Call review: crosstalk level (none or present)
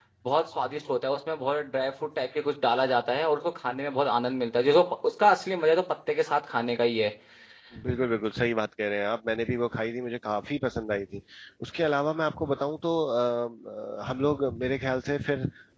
none